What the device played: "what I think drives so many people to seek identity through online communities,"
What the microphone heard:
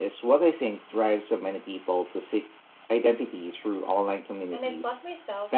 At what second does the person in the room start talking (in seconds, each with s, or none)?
4.5 s